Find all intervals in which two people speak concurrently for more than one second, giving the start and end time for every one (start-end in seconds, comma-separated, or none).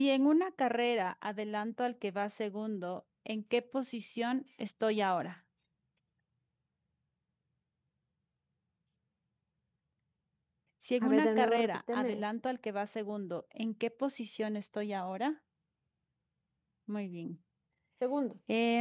11.0-12.2